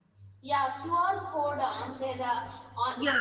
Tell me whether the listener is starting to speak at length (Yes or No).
Yes